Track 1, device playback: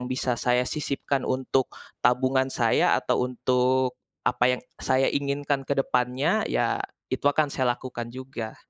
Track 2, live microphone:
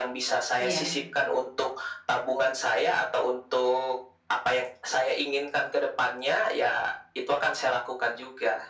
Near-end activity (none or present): present